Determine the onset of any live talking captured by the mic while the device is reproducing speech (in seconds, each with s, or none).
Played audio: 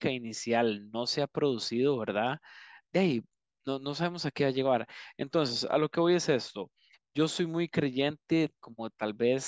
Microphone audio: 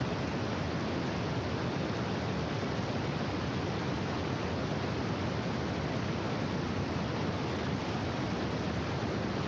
none